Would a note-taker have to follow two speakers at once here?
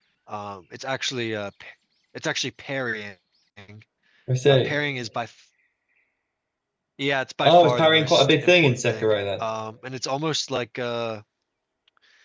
Yes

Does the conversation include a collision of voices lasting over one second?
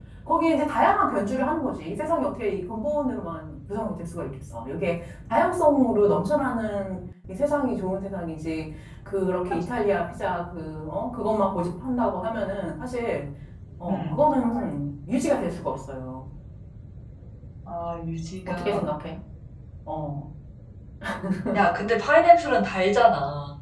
No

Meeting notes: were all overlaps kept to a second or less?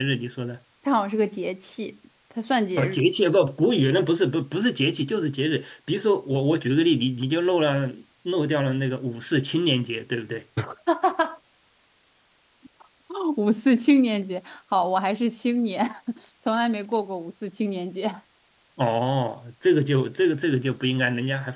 Yes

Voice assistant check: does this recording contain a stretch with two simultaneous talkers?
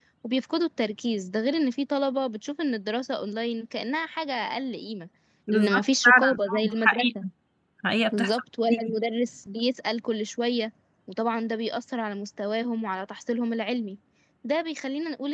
Yes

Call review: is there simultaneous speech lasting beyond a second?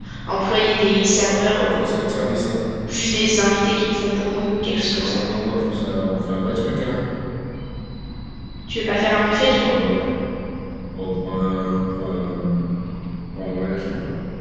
Yes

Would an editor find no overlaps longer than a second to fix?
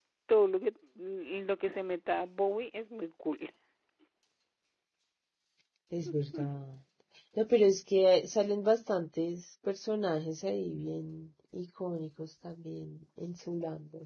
Yes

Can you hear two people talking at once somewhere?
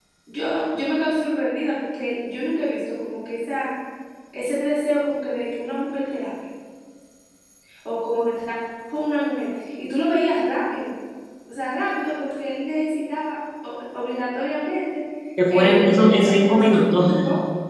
Yes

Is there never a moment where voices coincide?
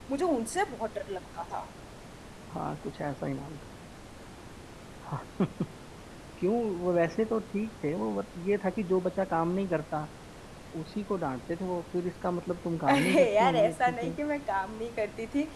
No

